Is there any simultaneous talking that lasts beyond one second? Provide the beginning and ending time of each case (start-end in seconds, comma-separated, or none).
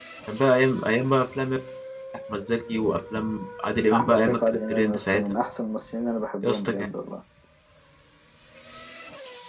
4.0-5.2